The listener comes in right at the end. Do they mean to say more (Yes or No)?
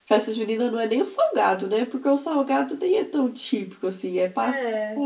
No